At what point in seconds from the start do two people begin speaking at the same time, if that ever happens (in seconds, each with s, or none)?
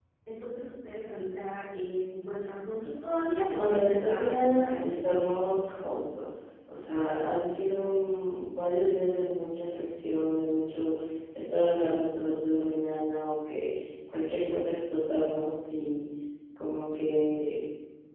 3.5 s